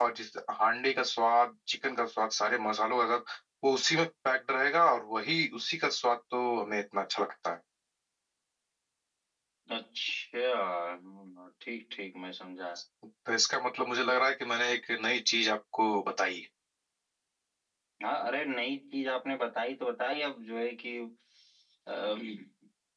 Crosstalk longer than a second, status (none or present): none